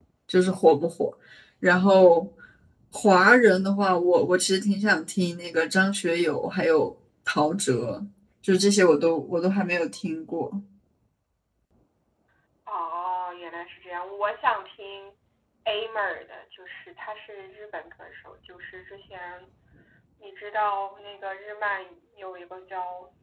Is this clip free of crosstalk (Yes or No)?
Yes